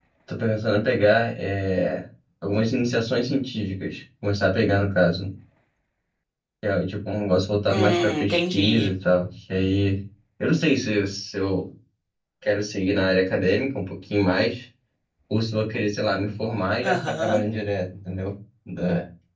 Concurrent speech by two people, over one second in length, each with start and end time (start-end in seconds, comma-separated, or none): 7.7-8.9